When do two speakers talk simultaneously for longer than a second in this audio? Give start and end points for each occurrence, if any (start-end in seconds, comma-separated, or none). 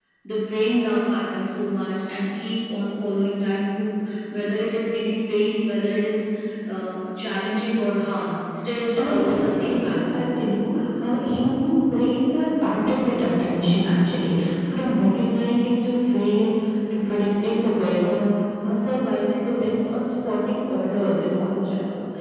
9.0-10.2